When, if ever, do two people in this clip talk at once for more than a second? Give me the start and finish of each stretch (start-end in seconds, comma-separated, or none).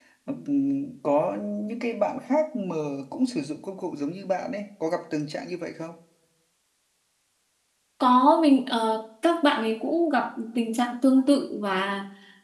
none